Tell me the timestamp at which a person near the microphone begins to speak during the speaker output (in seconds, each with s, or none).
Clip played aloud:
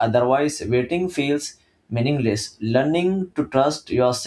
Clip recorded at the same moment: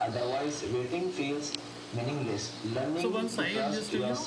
2.9 s